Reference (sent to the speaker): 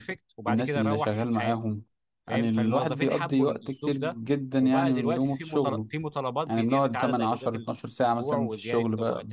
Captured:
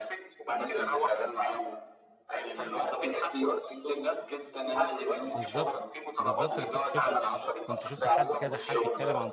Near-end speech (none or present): present